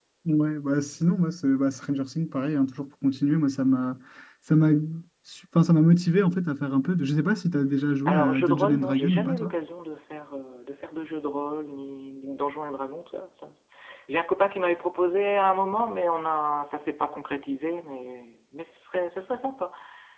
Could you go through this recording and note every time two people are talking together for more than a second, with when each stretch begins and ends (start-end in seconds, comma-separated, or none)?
8.1-9.5